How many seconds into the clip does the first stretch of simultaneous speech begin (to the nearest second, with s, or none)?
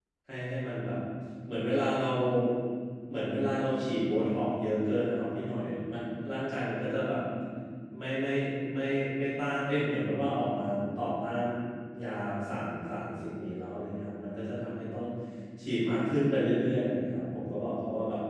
none